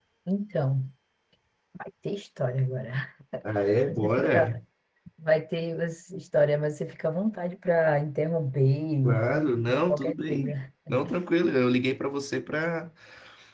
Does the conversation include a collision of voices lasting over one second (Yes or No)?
Yes